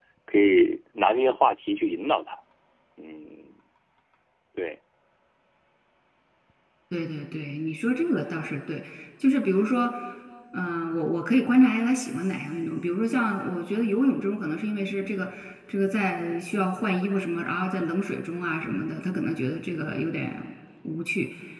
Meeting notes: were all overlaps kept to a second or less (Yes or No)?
Yes